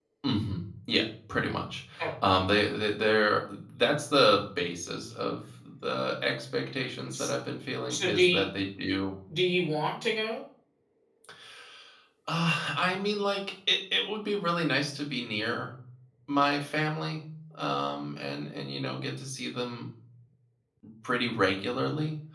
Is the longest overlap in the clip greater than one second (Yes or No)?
No